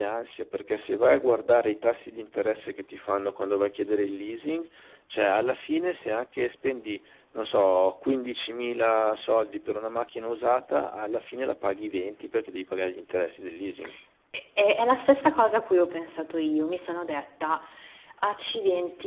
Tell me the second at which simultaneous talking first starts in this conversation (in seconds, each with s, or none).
none